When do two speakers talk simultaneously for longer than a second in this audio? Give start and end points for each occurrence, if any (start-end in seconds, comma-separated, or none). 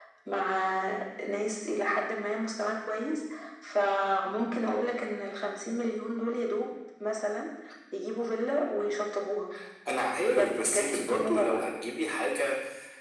10.3-11.6